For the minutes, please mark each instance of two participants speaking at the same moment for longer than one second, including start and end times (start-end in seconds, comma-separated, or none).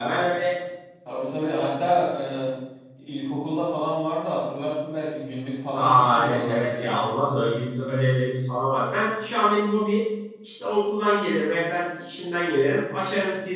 5.7-7.3